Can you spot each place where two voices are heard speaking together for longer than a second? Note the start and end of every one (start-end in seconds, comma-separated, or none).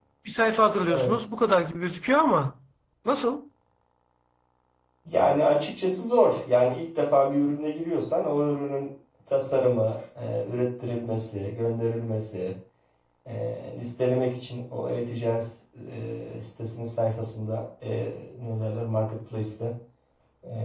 none